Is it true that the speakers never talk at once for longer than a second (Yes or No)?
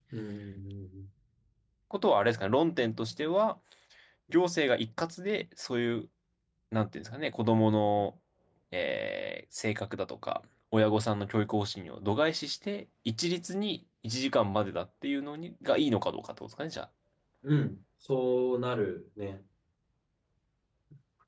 Yes